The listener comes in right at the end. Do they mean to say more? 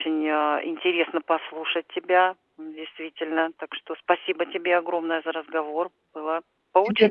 Yes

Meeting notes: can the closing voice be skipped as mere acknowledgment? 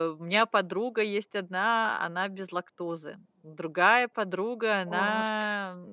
Yes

